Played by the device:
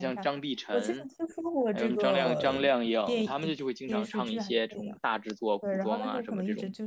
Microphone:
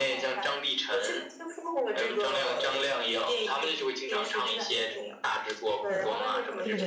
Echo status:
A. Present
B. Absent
A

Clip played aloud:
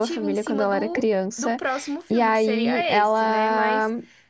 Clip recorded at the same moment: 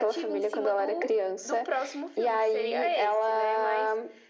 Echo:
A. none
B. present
B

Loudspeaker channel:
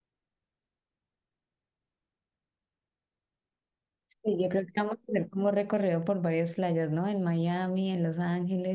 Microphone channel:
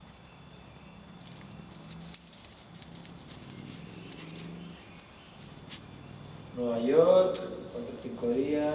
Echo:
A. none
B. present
A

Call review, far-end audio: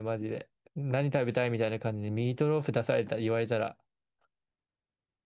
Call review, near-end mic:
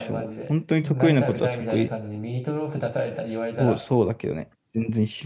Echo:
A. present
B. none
A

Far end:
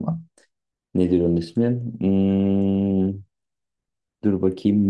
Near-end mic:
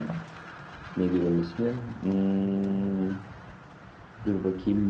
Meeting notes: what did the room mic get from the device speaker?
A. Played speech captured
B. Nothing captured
A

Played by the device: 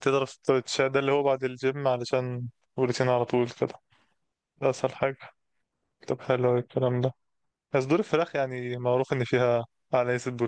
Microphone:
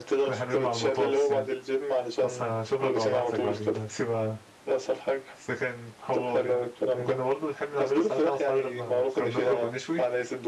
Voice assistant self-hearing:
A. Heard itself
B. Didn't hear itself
A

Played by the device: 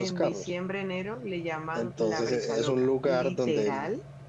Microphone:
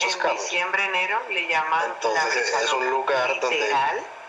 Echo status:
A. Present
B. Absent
A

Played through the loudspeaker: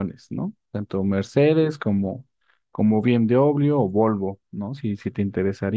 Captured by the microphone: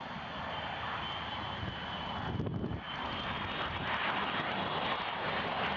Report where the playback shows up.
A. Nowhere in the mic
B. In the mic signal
A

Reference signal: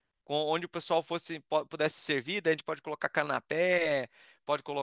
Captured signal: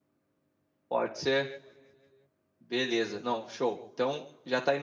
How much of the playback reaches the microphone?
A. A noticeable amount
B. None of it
B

